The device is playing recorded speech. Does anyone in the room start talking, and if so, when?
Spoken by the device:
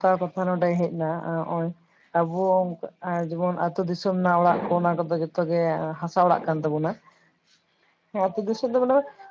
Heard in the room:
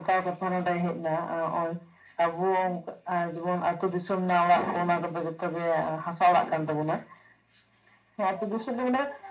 none

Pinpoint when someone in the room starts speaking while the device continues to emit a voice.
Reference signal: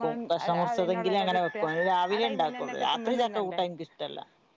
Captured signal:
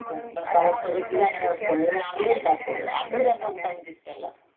none

